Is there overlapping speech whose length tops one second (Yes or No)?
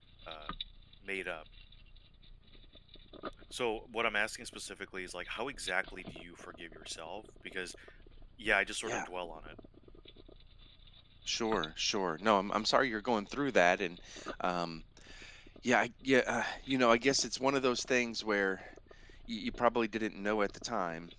No